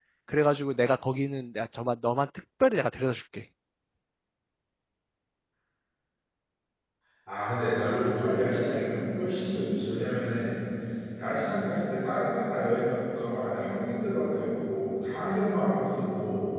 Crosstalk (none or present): none